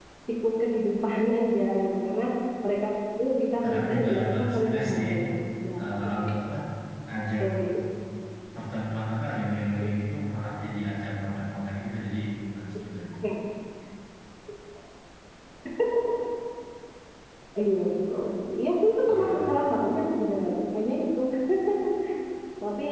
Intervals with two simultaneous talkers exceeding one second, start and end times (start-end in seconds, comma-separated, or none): 3.6-5.0